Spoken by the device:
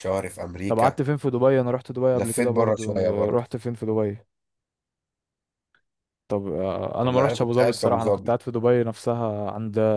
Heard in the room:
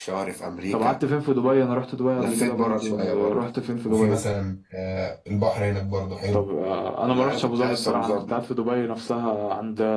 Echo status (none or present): present